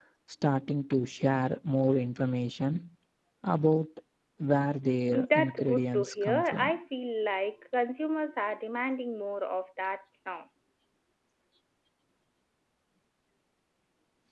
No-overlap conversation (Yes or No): No